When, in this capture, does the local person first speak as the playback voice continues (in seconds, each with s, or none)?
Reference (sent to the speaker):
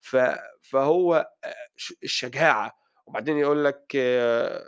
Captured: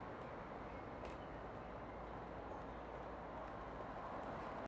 none